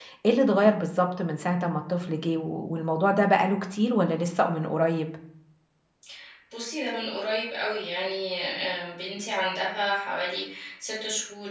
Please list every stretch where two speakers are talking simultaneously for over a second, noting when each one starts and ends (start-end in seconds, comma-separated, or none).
none